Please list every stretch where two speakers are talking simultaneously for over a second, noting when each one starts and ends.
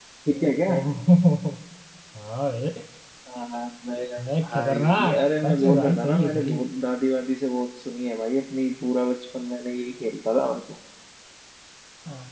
4.4-6.6

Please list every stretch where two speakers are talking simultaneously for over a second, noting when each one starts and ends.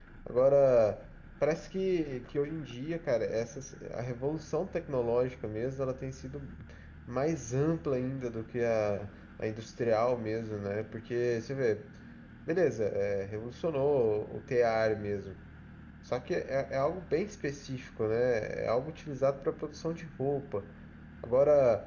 none

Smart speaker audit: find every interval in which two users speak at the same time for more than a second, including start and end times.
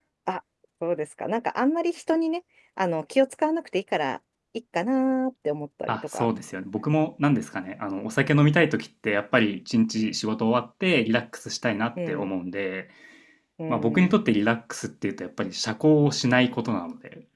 none

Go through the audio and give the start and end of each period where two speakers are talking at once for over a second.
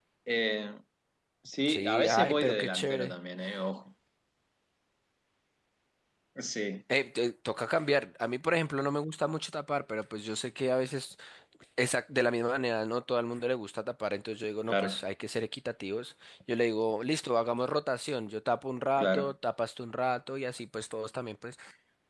1.7-3.1

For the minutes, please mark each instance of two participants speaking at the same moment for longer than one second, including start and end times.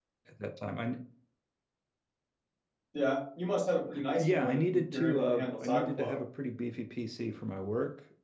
4.1-6.2

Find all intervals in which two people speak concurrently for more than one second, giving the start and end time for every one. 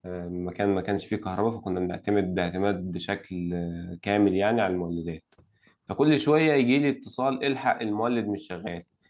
none

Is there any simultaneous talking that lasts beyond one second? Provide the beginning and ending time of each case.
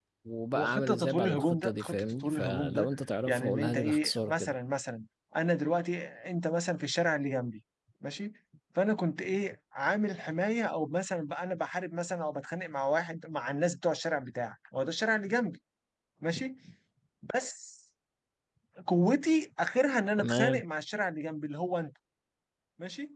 0.5-2.9, 3.3-4.6

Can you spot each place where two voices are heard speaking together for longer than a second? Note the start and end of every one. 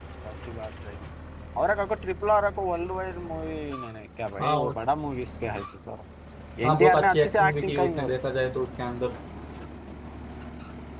6.7-8.1

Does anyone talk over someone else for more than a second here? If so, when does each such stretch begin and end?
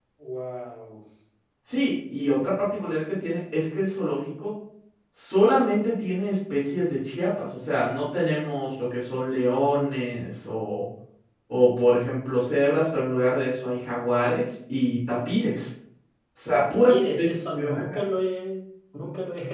16.5-18.0

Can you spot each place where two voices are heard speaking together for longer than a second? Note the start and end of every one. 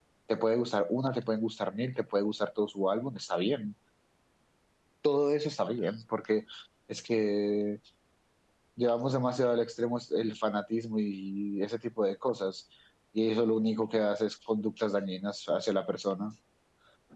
none

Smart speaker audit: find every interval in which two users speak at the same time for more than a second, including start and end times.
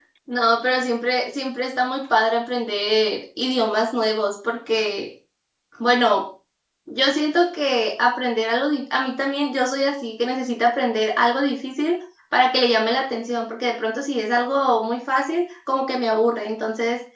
none

